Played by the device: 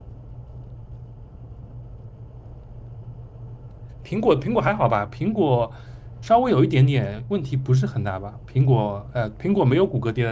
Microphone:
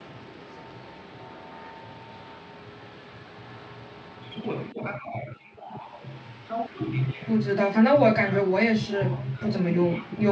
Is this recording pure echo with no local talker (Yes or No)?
No